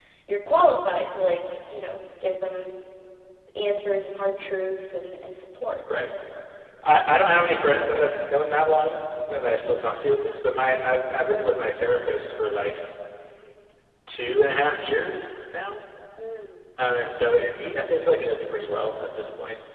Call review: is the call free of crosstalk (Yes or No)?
Yes